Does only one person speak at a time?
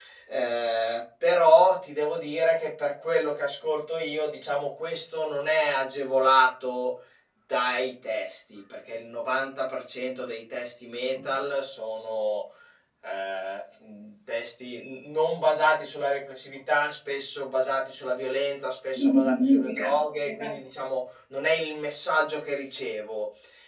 No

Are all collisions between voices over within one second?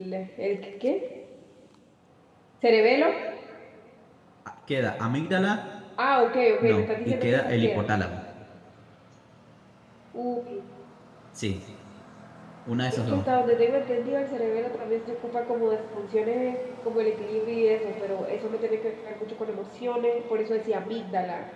No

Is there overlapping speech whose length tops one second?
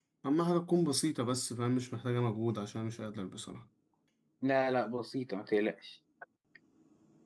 No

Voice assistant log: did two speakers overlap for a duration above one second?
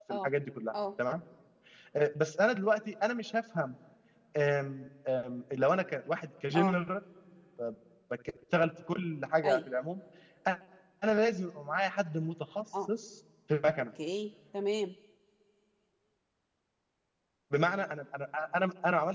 No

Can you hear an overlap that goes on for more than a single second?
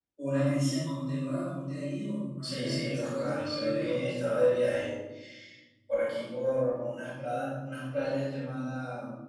Yes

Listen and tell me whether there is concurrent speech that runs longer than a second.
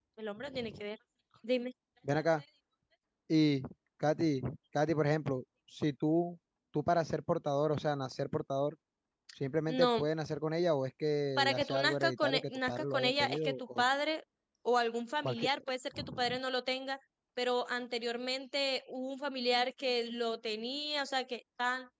Yes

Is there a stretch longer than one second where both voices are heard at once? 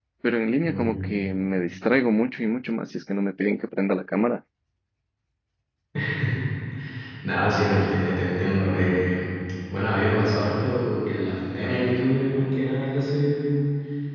No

